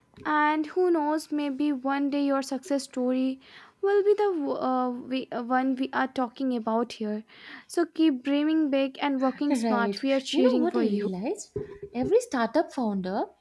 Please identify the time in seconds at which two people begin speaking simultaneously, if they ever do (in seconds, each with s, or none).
9.5 s